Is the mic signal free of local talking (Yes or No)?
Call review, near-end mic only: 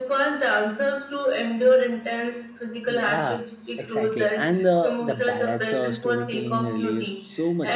No